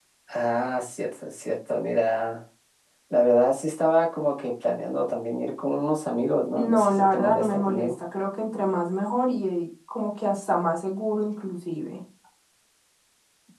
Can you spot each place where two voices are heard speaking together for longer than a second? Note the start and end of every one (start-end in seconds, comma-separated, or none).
6.6-7.9